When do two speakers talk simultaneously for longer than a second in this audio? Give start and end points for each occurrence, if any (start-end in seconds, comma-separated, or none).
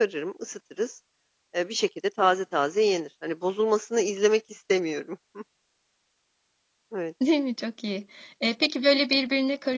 none